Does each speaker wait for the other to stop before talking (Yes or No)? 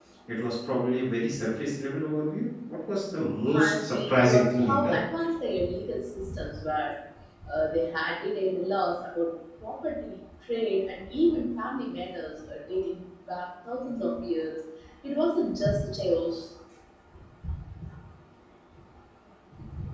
No